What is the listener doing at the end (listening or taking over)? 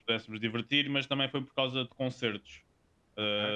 listening